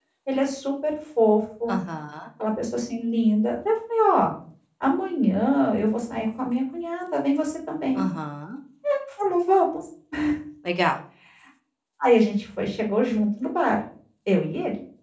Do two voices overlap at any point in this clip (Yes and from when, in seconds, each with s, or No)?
No